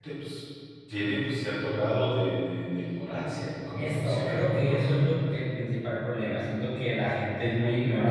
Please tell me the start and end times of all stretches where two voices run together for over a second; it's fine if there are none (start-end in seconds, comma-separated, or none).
3.8-5.2